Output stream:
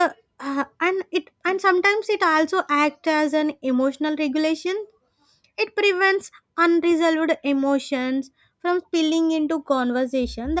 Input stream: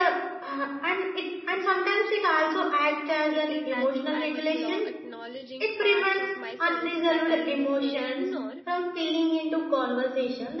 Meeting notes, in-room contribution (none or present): present